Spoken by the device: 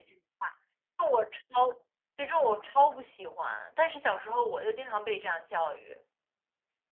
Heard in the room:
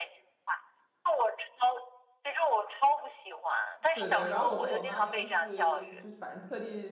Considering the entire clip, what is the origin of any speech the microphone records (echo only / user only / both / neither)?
both